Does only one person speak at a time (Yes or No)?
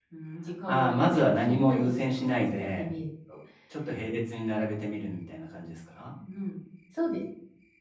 No